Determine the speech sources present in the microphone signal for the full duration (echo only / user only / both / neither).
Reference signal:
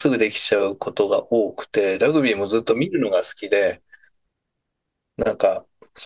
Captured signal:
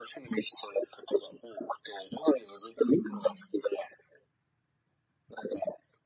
both